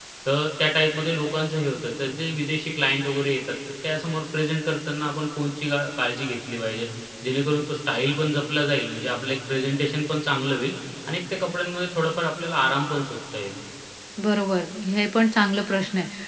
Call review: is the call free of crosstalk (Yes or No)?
Yes